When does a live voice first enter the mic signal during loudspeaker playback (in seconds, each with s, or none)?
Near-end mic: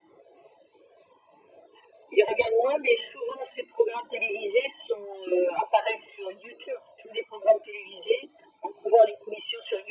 none